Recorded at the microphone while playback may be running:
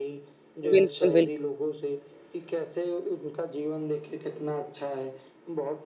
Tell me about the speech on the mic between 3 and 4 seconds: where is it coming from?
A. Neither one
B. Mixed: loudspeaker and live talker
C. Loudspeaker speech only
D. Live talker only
C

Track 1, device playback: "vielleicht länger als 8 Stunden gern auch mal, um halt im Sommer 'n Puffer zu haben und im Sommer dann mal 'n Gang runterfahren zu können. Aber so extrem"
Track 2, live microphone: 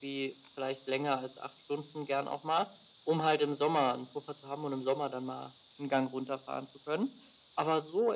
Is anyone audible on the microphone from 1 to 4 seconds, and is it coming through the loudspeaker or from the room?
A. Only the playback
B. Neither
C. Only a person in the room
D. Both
A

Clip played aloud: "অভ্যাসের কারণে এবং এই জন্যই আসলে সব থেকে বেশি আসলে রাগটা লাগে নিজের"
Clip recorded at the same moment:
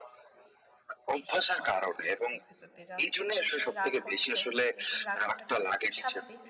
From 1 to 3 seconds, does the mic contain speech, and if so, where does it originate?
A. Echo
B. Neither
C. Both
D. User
C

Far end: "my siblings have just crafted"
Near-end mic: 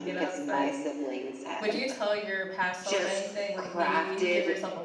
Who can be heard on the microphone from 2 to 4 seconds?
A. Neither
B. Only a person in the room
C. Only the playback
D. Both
D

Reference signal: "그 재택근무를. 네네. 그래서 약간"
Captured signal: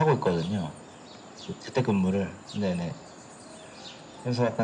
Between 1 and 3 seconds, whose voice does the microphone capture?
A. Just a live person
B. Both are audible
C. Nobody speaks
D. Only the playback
D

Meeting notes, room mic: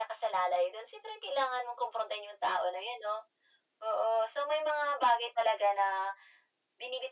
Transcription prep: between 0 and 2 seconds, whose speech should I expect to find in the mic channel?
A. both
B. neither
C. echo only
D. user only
C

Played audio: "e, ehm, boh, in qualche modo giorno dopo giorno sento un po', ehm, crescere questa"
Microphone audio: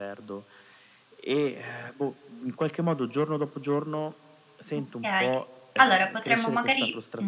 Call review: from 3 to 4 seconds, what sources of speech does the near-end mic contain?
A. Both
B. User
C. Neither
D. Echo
D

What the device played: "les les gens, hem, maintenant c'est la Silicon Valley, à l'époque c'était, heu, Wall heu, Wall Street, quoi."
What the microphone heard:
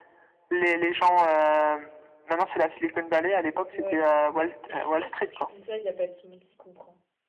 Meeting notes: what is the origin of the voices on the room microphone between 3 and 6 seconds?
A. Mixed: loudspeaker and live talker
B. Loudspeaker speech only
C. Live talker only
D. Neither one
A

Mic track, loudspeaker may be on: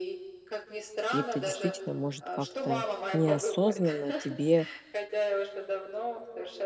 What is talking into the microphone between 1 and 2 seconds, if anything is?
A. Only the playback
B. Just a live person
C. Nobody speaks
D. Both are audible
D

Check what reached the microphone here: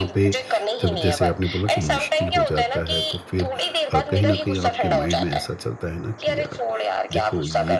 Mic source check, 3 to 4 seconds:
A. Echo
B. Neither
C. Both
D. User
C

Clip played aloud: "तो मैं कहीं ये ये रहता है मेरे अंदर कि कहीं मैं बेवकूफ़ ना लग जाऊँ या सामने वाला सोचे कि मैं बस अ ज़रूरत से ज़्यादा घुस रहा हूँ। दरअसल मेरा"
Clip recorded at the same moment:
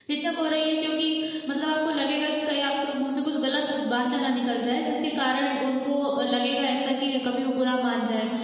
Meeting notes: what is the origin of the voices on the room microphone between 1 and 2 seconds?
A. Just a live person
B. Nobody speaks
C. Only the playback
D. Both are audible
A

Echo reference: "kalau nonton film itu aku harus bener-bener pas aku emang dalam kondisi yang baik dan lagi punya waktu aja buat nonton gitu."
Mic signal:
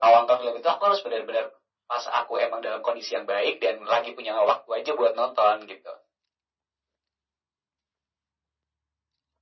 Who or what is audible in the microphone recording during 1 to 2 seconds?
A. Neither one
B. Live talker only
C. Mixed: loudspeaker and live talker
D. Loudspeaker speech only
D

